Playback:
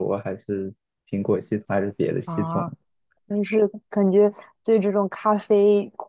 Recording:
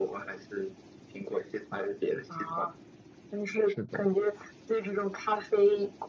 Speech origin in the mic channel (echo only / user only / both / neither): both